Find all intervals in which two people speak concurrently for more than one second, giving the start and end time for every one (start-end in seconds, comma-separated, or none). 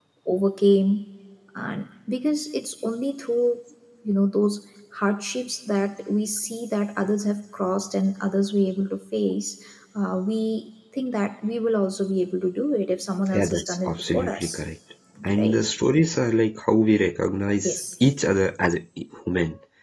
13.3-14.6